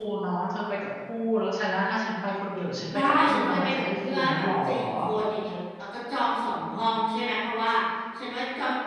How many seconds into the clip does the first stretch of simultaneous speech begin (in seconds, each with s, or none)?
2.9 s